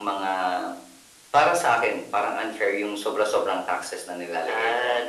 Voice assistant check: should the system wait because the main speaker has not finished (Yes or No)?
No